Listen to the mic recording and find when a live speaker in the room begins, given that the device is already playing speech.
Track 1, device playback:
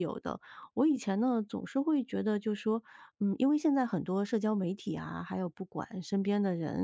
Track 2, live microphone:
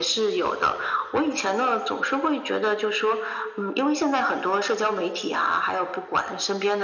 none

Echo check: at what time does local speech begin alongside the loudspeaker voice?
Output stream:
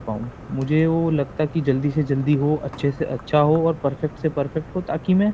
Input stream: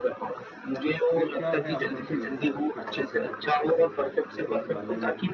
1.1 s

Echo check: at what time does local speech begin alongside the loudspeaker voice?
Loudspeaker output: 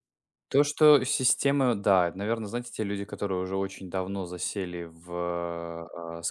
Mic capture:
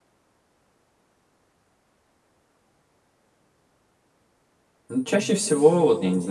4.9 s

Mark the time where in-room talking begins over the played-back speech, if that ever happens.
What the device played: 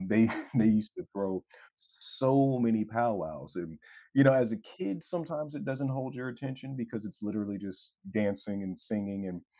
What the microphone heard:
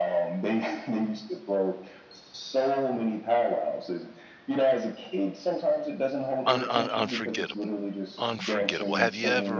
6.5 s

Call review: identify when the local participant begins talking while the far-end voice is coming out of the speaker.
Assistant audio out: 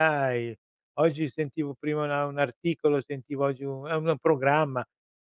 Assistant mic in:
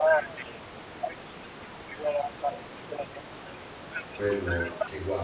4.1 s

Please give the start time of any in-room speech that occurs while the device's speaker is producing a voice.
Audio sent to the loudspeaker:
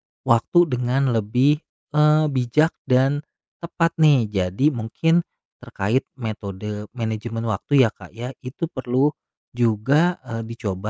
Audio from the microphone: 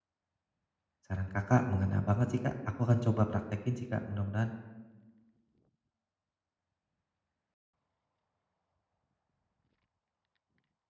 1.0 s

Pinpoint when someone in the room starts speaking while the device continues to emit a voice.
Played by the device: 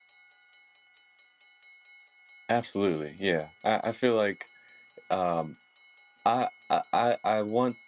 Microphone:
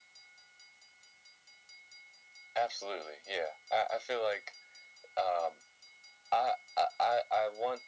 none

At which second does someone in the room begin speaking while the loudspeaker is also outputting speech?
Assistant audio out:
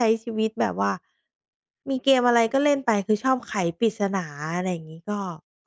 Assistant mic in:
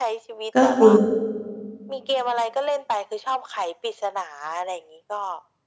0.5 s

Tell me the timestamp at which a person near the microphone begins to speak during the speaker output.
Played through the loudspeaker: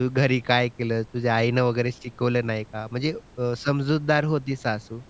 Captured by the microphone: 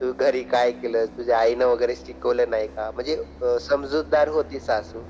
none

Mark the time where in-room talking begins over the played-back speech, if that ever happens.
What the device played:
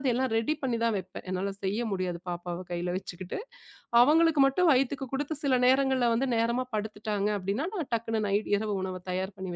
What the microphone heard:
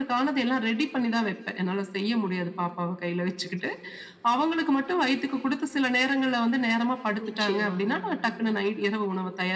7.3 s

